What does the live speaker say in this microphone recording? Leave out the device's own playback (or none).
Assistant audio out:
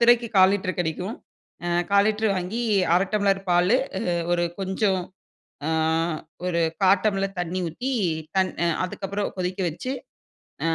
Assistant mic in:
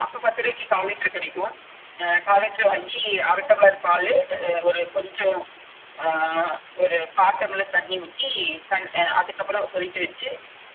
none